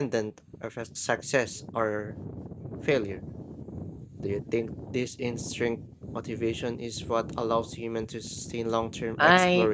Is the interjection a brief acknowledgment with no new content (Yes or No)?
No